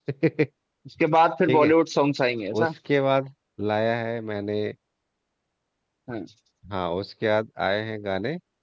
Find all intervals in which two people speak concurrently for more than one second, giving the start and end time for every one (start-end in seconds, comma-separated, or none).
none